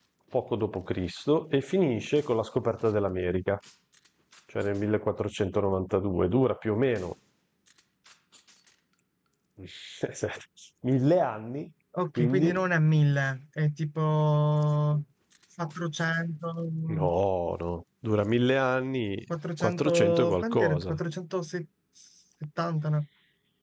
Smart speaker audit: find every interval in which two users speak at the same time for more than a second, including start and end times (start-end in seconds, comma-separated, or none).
19.6-21.0